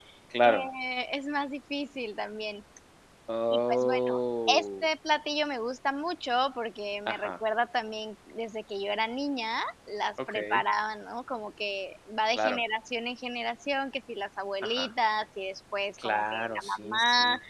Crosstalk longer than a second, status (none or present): present